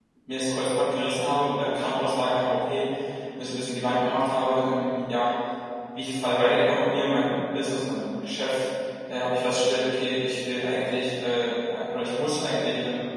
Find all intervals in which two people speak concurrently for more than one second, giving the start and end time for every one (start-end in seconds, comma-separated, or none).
none